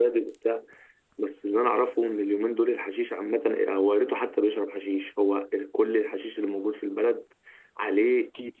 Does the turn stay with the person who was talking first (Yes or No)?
Yes